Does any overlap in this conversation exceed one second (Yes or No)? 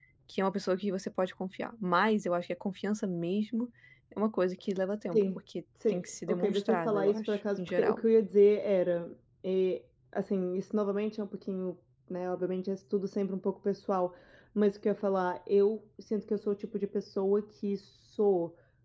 Yes